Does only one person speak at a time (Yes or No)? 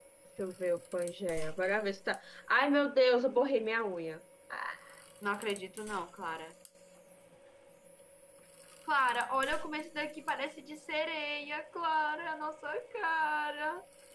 Yes